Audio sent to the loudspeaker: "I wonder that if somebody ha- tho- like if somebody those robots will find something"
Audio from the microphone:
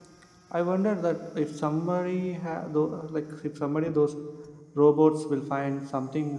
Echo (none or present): present